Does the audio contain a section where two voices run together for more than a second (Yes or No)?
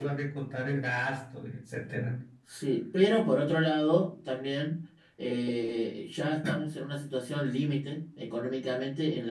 No